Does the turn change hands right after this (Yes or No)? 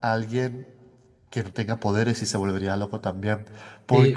Yes